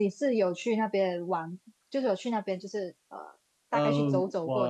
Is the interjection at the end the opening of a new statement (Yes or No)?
Yes